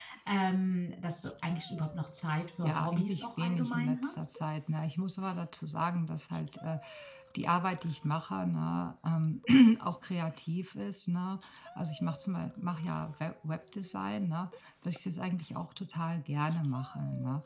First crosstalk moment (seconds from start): 2.6 s

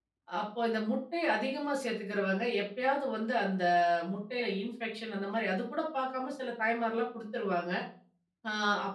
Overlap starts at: none

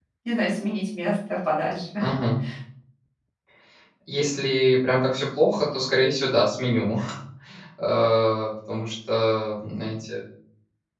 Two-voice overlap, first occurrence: none

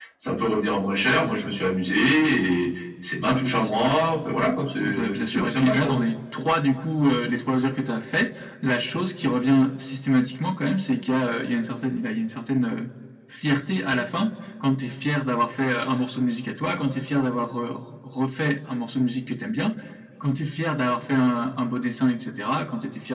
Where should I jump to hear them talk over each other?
4.8 s

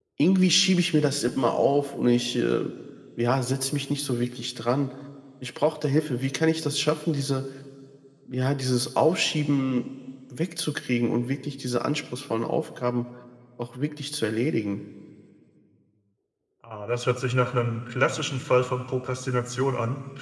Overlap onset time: none

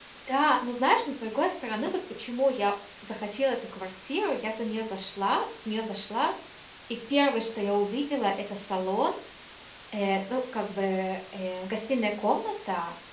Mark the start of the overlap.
none

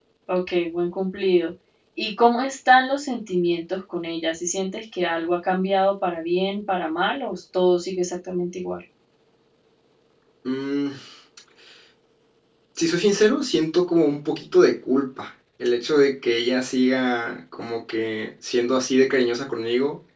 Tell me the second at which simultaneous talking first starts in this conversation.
none

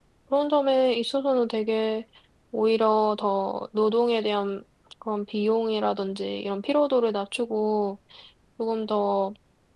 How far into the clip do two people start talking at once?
none

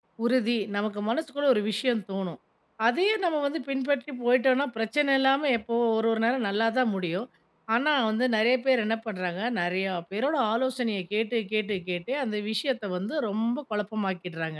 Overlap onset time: none

